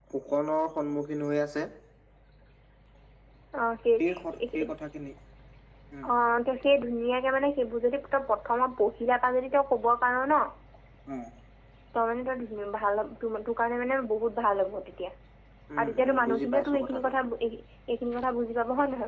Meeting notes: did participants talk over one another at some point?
Yes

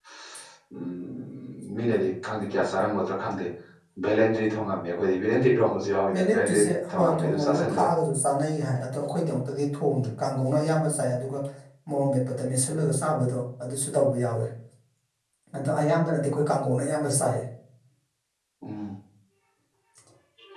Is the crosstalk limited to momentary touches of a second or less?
No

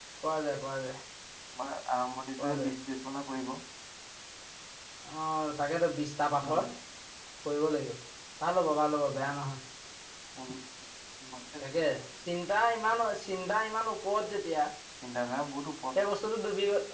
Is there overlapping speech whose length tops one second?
No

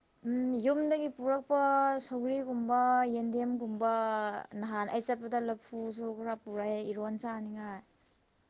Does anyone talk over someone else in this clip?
No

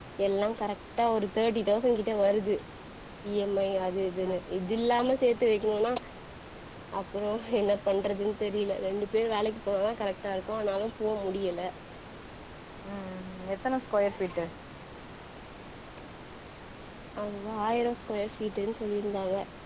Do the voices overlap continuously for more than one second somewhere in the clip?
No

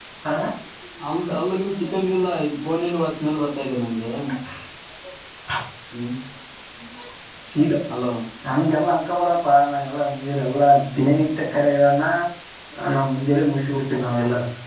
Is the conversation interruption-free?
Yes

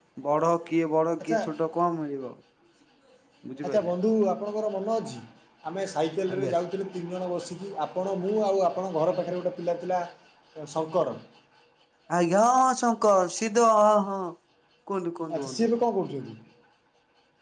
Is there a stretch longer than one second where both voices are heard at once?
No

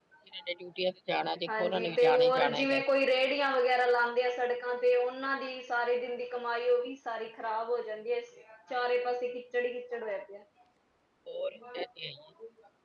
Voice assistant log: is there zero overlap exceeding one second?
No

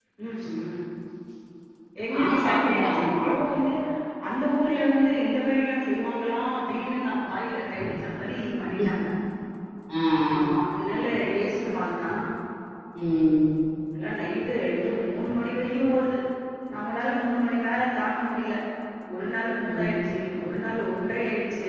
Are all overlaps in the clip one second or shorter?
No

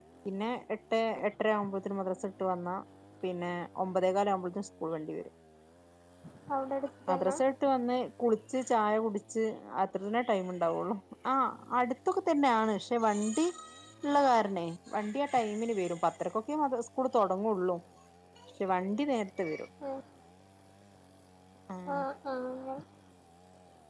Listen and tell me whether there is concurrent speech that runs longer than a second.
No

